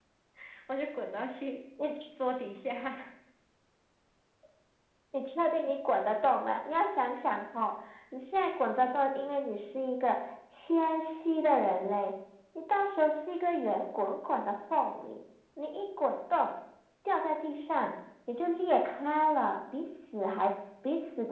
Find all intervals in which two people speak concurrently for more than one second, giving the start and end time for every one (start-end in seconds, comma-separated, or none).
none